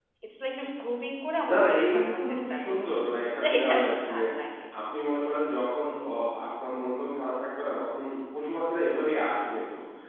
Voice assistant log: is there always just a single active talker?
No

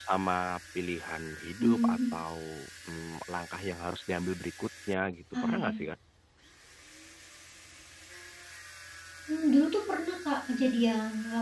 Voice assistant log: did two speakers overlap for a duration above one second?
No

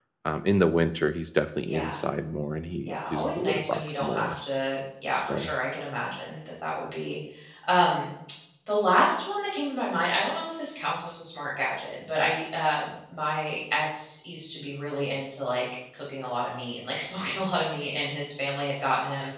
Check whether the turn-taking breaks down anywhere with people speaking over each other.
Yes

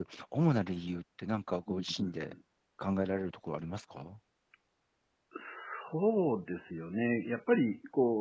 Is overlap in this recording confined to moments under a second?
Yes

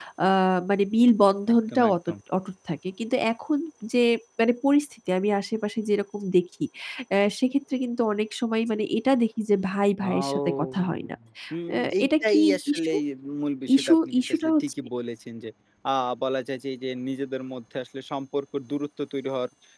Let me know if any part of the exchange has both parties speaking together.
Yes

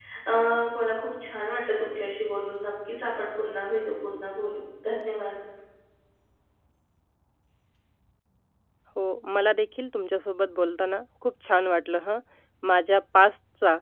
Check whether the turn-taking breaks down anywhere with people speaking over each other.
No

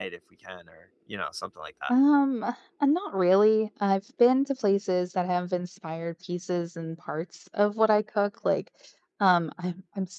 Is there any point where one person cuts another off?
No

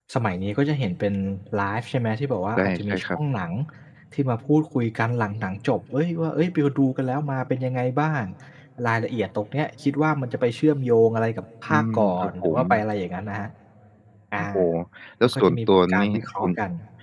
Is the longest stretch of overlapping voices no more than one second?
No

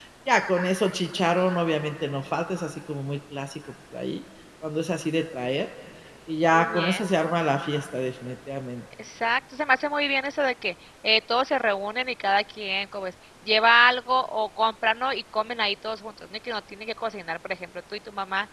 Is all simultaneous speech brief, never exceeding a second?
Yes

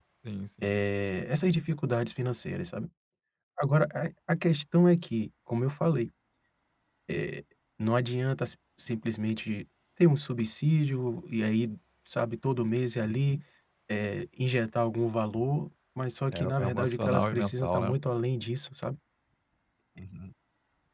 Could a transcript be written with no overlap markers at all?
No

